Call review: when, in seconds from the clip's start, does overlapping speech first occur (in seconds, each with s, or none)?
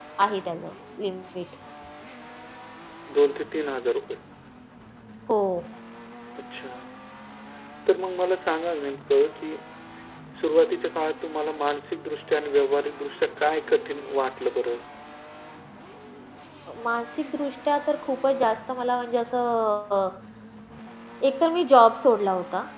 none